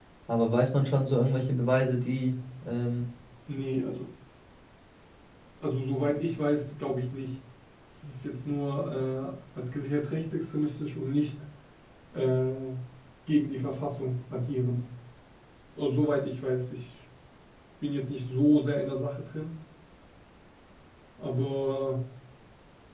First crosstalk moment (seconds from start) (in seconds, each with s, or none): none